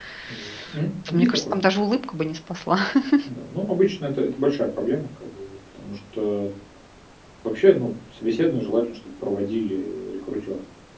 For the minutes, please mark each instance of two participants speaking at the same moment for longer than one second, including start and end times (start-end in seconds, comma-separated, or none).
none